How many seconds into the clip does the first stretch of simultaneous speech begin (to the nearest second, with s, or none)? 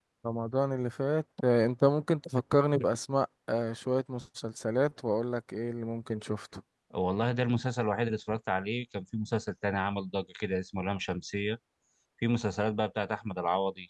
none